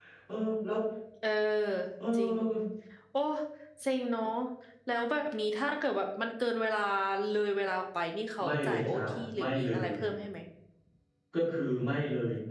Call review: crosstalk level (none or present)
present